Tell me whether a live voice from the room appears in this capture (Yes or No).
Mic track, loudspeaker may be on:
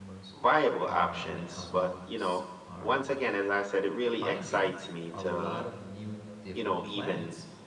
Yes